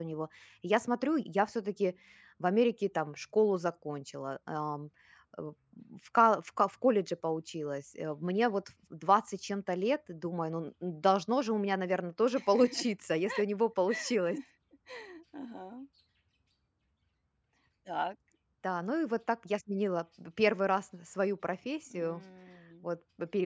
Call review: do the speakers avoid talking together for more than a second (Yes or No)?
Yes